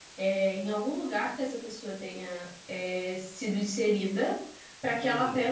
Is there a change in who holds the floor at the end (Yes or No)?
No